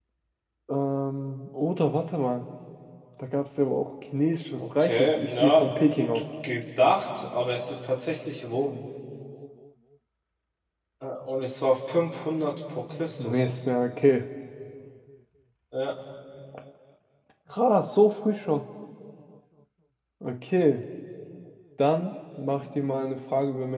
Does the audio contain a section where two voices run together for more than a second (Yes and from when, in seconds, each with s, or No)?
Yes, from 4.6 s